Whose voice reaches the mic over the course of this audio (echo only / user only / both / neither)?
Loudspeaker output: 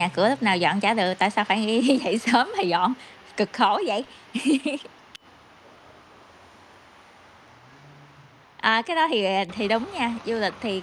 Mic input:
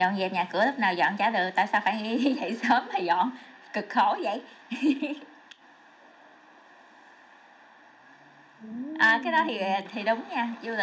both